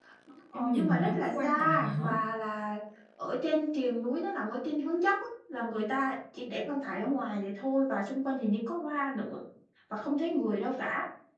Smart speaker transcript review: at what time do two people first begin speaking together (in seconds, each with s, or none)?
0.5 s